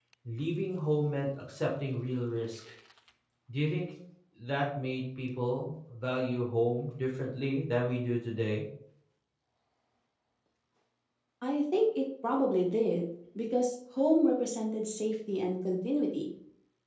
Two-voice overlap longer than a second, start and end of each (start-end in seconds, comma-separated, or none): none